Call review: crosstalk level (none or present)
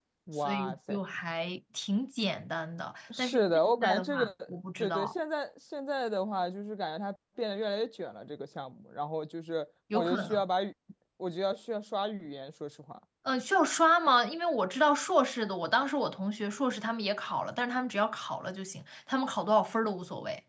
present